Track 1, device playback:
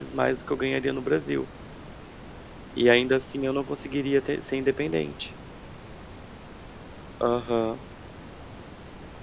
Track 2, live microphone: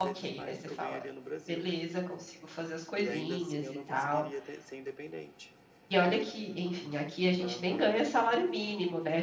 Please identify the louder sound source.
user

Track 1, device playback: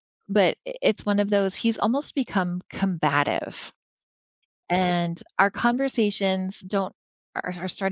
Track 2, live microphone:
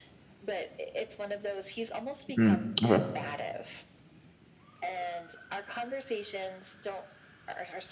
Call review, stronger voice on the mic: user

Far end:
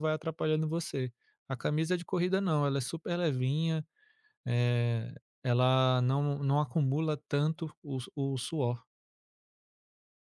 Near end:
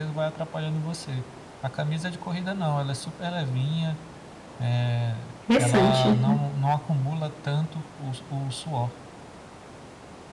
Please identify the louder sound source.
user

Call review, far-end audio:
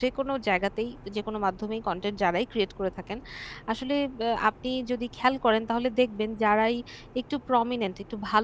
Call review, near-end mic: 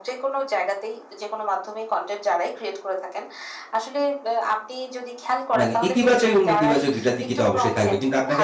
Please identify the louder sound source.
user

